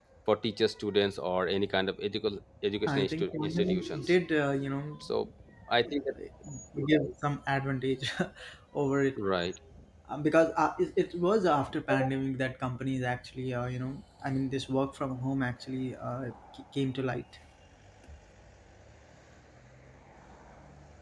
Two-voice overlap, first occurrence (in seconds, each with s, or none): 2.9 s